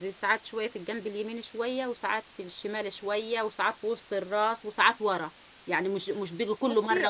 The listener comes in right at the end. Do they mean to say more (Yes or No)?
Yes